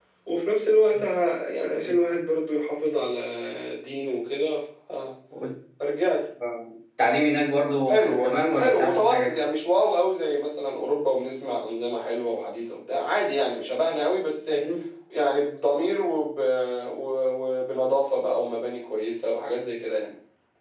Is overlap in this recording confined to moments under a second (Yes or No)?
No